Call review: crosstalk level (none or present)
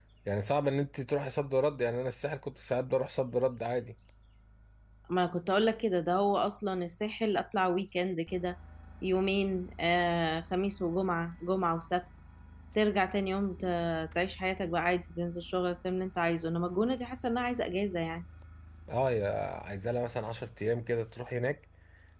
none